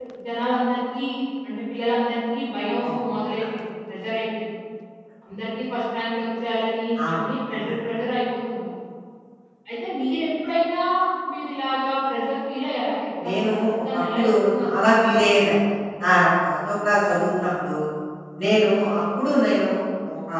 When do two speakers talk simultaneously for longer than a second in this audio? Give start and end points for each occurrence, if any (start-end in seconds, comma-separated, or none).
13.3-14.9